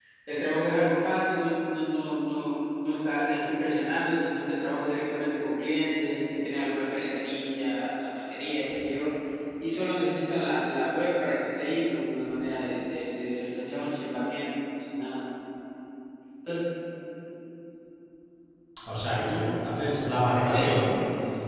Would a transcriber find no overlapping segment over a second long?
Yes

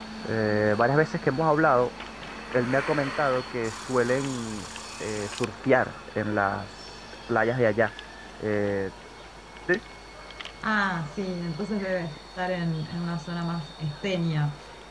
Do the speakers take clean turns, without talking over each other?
Yes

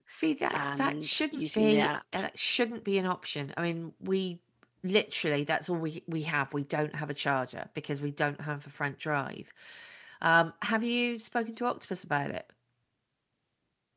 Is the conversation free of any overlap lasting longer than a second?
No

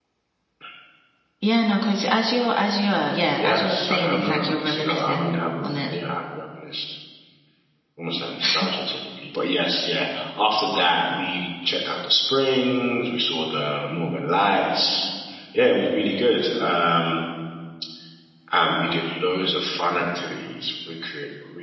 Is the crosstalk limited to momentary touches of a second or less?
No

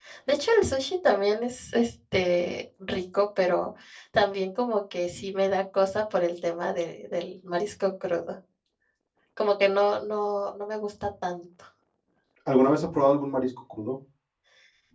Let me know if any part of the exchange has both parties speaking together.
No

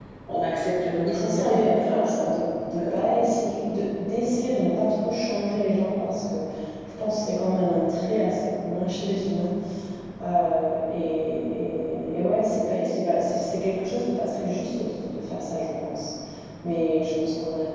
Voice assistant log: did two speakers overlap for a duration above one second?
Yes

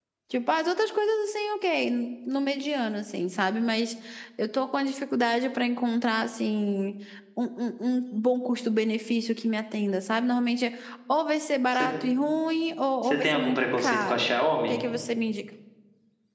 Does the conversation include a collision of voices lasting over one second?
Yes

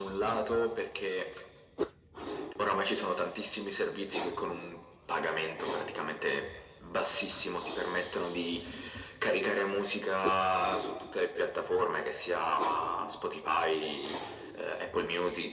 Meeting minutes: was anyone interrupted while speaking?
No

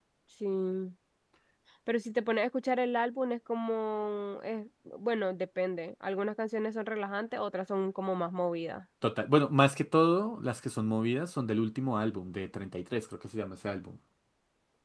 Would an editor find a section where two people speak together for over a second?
No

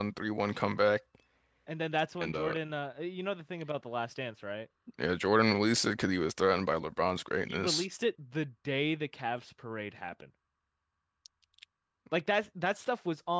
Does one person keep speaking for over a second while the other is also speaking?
No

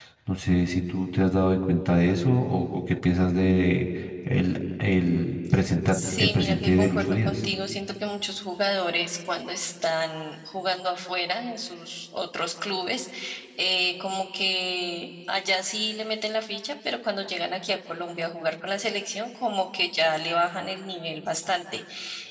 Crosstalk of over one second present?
Yes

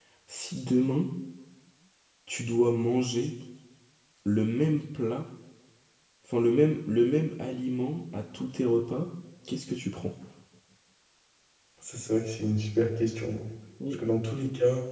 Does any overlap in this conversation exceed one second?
No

